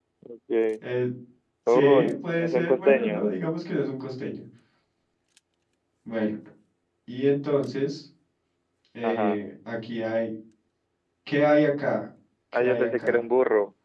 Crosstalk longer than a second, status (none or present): present